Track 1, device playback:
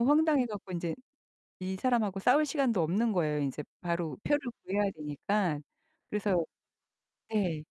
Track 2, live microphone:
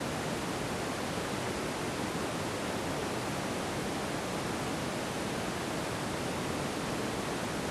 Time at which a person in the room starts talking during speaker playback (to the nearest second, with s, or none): none